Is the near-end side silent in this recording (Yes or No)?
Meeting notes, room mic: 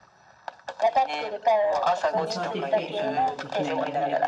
No